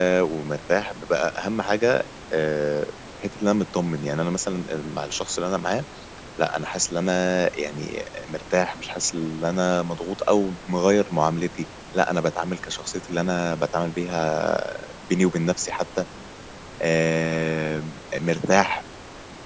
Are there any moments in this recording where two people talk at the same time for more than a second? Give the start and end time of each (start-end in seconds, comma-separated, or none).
none